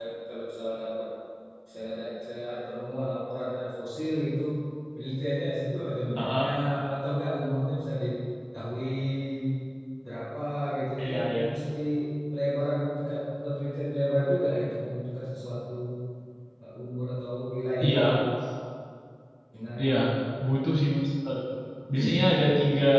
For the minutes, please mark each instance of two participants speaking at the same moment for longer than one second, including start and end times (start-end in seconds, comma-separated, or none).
none